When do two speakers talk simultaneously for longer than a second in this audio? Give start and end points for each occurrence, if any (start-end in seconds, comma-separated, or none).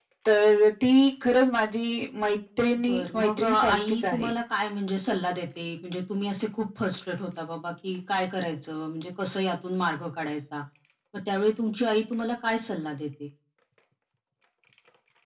2.9-4.3